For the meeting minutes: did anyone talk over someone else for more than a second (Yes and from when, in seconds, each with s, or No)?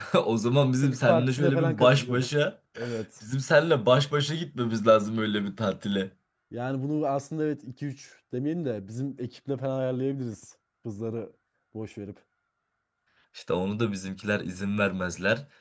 Yes, from 0.8 s